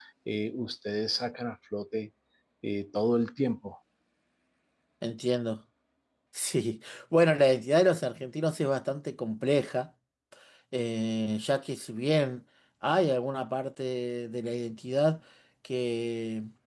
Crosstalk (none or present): none